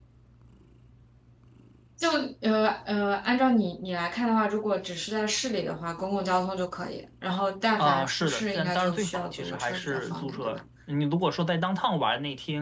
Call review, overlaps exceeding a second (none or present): present